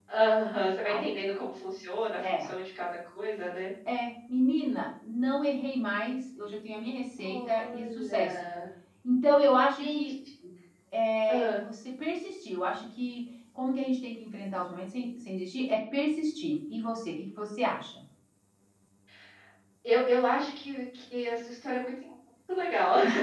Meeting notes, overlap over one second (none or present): present